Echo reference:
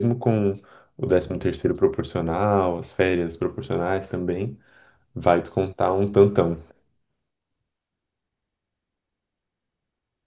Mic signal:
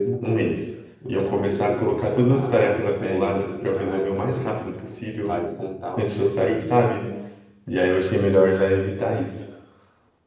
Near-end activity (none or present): present